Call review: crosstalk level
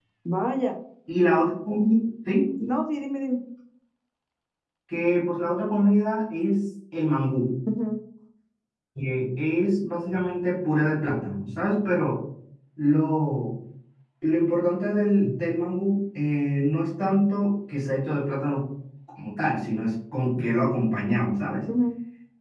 none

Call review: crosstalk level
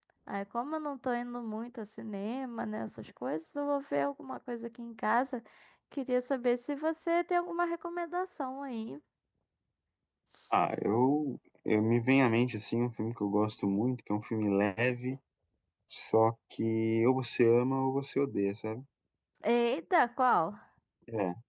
none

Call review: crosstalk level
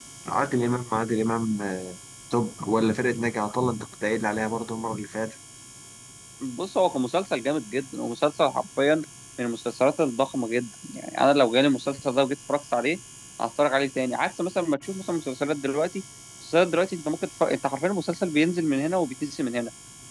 none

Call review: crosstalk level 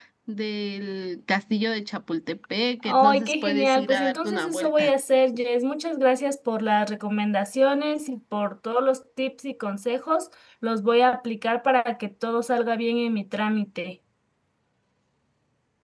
present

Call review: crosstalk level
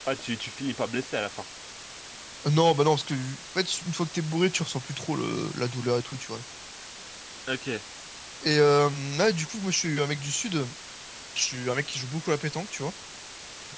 none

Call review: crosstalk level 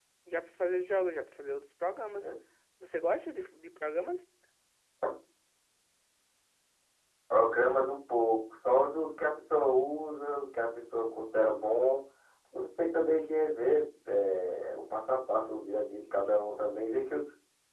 none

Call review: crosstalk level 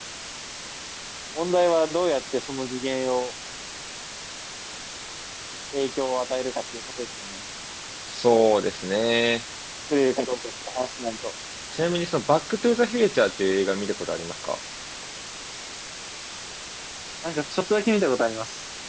none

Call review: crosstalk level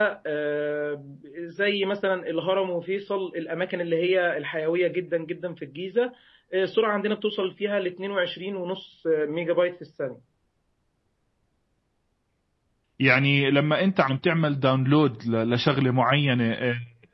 none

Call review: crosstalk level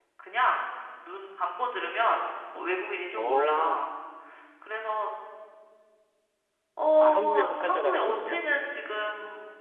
present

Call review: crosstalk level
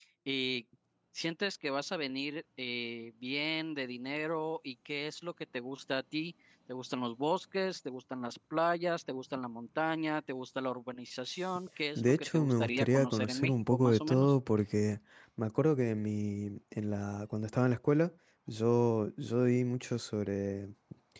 present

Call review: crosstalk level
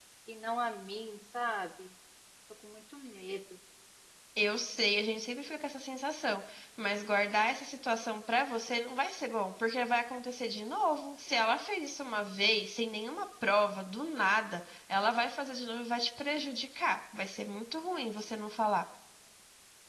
none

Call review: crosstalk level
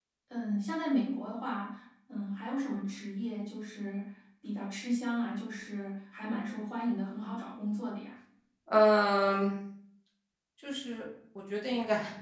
none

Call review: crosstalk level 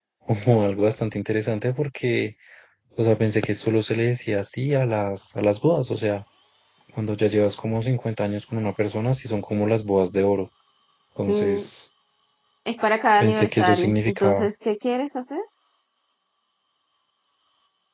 present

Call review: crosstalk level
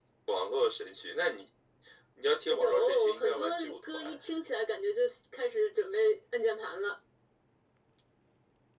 present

